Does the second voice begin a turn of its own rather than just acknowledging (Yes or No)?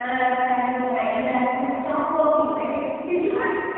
No